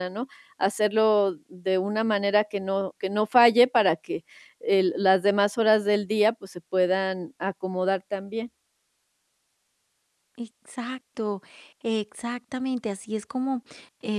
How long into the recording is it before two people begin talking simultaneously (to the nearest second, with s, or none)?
none